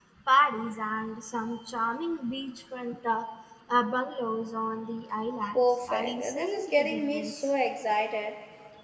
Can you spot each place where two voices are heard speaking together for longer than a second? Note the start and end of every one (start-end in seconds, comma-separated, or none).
5.5-7.5